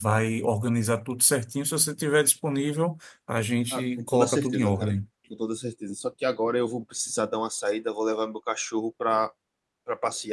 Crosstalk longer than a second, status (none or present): present